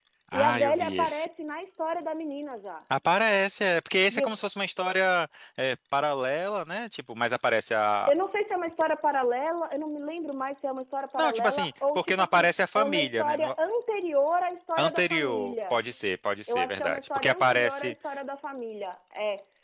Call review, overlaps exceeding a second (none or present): present